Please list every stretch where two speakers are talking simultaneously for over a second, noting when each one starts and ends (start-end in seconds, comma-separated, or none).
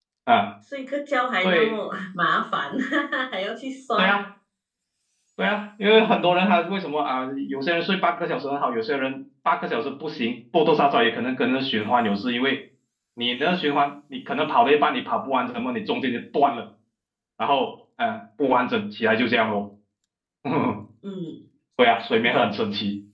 none